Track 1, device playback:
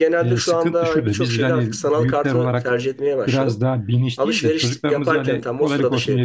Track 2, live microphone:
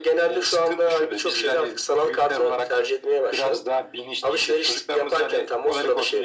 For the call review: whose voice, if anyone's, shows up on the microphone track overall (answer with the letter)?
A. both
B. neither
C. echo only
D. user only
C